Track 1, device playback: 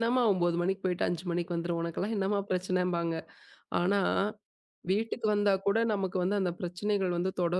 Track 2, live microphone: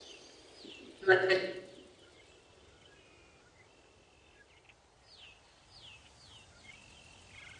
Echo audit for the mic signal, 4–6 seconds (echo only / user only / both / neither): neither